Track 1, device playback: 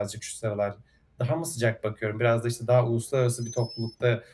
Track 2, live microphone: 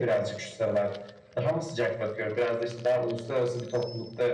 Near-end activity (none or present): none